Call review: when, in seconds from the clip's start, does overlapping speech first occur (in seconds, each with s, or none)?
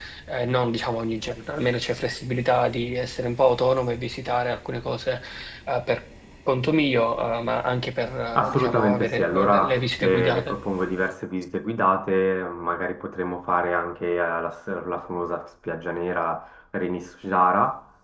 8.3 s